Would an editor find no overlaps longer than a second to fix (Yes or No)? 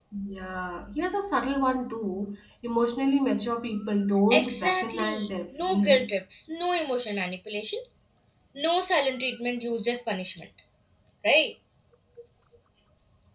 No